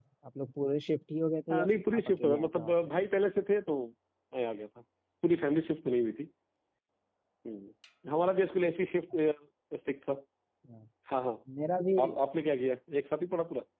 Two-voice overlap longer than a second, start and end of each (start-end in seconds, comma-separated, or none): 1.5-2.9